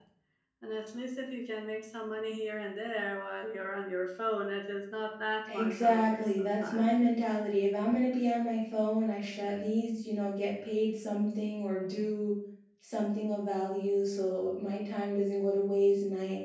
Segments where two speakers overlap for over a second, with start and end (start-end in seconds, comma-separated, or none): 5.5-6.9